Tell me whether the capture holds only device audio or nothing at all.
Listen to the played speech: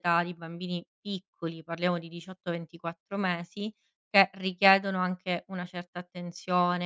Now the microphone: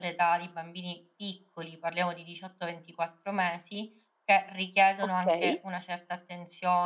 No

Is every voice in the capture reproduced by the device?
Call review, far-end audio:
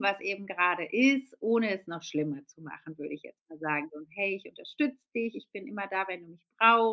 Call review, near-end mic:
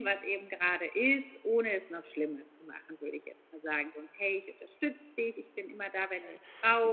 No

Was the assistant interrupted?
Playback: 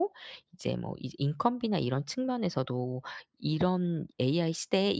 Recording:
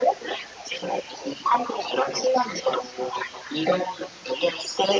No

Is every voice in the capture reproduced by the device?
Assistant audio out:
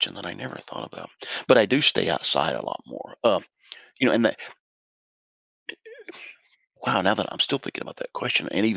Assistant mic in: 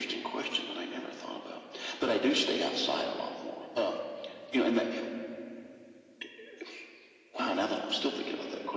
Yes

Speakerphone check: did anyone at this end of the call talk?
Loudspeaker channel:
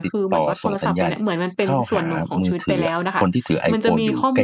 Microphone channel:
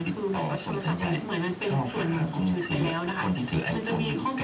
No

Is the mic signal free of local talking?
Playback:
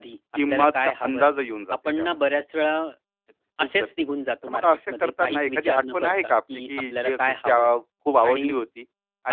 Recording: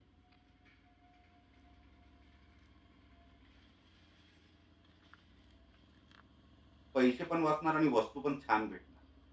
No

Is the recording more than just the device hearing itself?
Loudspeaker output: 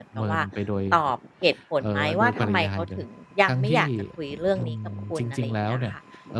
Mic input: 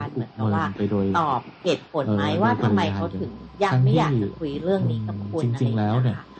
No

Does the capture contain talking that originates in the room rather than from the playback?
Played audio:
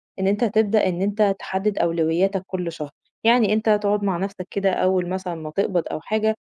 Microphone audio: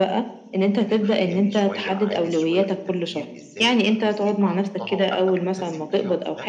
Yes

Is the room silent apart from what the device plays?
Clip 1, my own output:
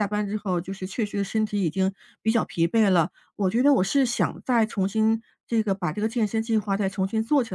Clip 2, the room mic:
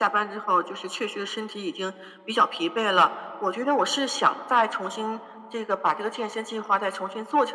Yes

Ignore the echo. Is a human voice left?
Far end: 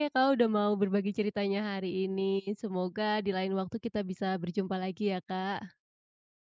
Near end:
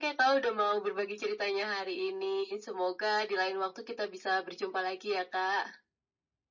No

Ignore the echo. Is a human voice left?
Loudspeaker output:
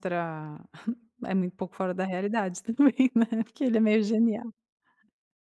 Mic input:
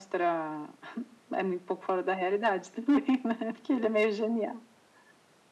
No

